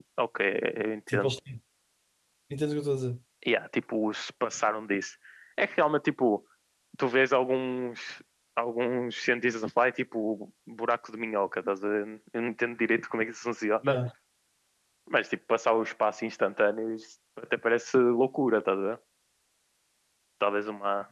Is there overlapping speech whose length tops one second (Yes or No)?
No